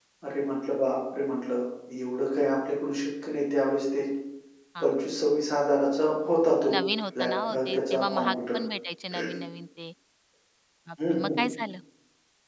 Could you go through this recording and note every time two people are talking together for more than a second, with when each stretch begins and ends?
7.2-8.6

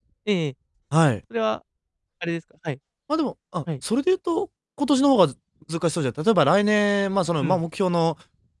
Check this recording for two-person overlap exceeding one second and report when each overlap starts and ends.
none

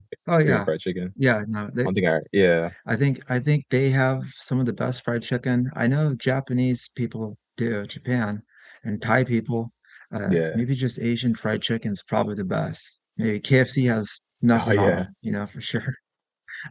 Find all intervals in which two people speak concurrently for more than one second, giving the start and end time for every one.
none

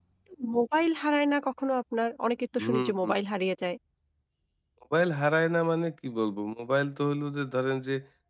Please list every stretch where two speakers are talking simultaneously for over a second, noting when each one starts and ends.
none

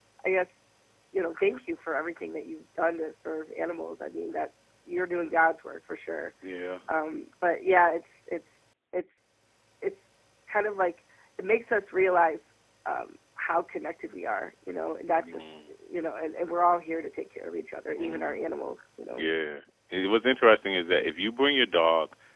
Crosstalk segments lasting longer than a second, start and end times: none

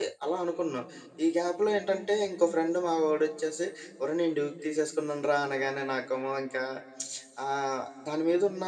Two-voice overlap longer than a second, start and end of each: none

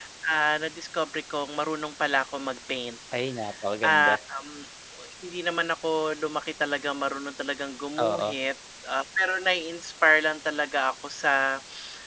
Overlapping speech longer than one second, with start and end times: none

